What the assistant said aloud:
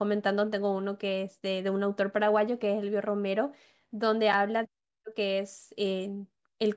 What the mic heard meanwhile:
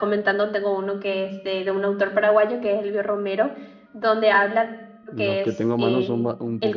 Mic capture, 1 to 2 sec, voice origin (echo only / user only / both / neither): echo only